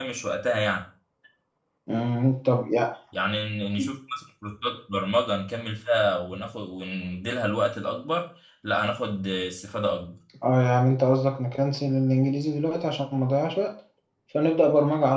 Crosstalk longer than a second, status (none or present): none